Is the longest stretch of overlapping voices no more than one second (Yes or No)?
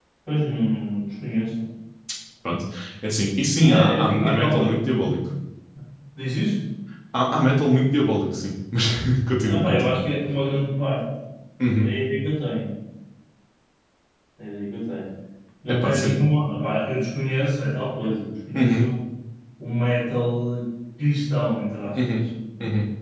No